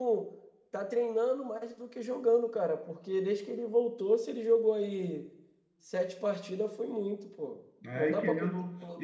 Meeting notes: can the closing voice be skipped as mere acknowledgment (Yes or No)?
No